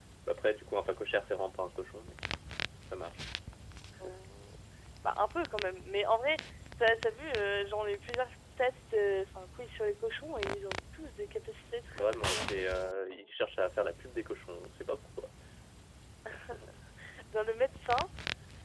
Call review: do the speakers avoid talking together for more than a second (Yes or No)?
No